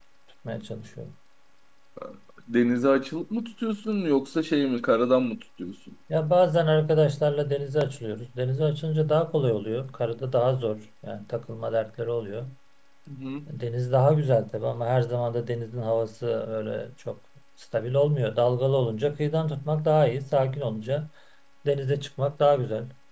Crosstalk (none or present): none